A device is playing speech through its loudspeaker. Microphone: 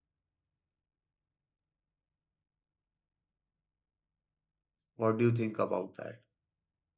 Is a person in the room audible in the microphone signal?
Yes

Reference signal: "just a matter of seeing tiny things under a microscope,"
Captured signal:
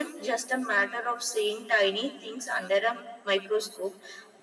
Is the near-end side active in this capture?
No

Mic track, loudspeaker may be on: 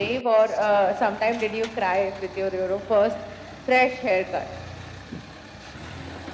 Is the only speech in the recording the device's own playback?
Yes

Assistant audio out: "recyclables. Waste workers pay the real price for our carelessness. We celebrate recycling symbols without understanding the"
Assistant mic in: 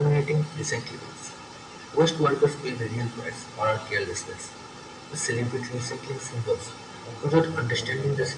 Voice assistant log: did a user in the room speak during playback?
Yes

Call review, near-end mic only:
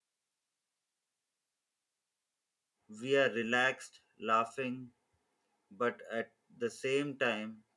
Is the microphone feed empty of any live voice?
No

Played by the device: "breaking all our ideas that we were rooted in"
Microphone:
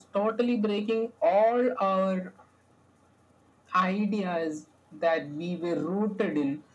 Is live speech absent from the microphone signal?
Yes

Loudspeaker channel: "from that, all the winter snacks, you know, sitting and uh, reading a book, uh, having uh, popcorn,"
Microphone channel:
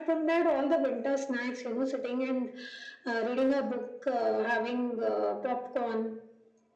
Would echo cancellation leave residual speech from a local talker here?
No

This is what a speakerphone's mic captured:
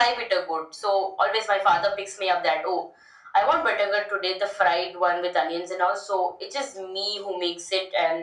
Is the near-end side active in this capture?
No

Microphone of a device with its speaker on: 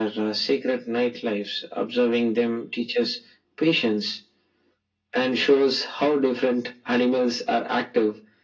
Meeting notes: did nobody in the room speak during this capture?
Yes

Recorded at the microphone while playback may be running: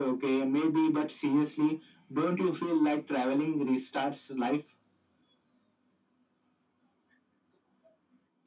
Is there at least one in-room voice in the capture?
No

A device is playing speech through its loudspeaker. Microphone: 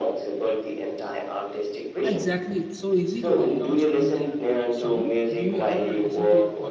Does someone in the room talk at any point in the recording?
Yes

